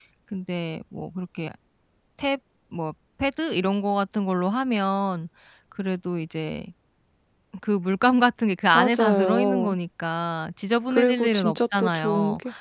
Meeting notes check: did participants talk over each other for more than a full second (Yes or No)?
Yes